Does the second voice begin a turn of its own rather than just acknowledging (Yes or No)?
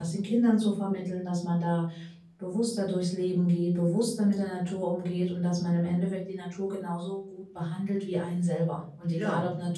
No